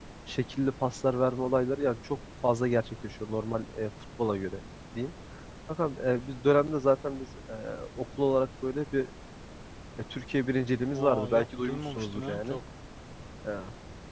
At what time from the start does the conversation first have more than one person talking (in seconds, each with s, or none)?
10.9 s